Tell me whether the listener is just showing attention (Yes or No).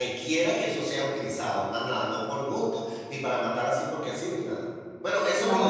No